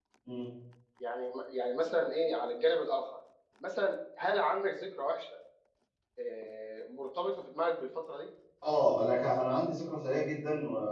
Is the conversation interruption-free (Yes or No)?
Yes